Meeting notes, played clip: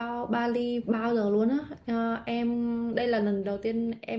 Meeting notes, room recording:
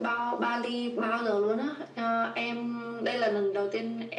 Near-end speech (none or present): none